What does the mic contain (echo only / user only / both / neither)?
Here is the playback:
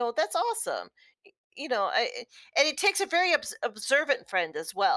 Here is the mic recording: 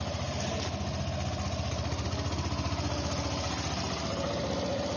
neither